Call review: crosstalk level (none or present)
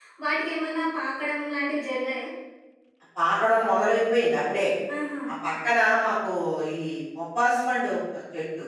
none